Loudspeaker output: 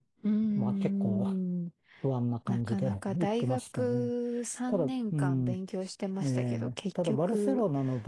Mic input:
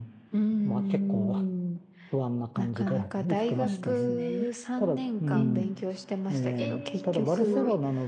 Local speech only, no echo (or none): あ、そうなんですね。えー、えー、すごい。